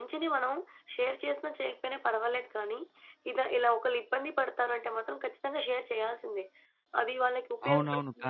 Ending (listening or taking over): taking over